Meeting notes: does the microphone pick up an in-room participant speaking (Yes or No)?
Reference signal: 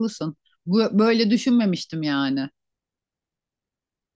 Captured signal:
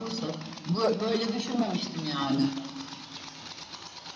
No